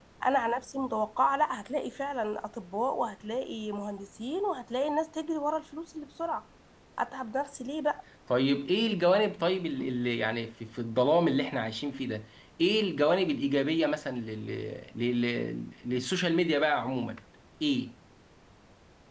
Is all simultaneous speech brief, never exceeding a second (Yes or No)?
Yes